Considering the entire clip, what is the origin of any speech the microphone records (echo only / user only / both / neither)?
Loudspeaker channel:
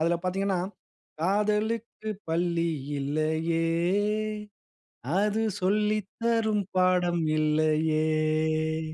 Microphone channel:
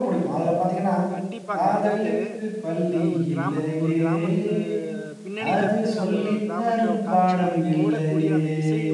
both